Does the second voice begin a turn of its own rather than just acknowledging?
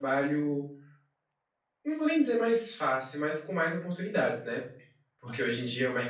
No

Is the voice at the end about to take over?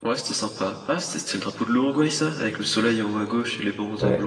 Yes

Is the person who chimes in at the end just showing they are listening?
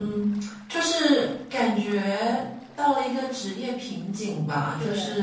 Yes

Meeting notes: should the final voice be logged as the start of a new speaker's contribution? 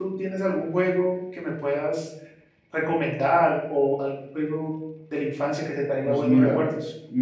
Yes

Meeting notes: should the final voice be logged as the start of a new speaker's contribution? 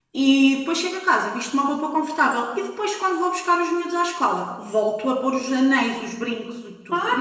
Yes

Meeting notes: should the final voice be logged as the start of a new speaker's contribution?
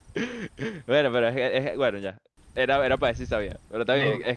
No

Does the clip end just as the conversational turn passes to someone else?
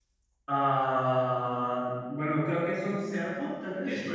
Yes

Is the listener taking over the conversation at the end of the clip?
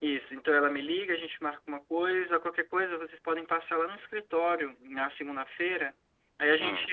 No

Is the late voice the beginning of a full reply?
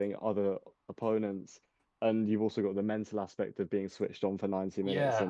No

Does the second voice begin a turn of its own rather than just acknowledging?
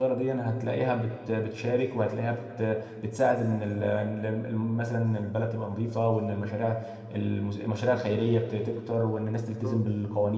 No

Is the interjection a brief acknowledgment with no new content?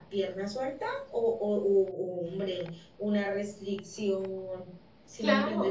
No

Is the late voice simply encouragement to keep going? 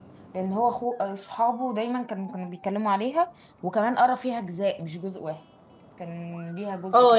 No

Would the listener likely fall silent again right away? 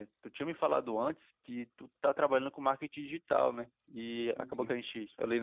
Yes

